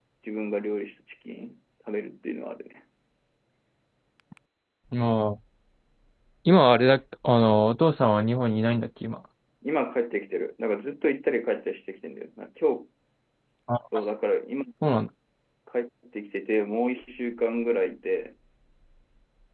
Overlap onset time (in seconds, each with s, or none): none